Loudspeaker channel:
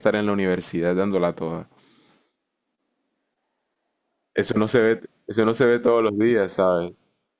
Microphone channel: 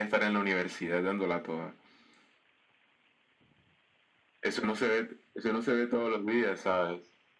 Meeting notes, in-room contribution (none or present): none